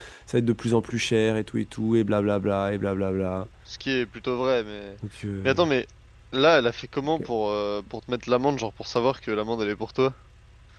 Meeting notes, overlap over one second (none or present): none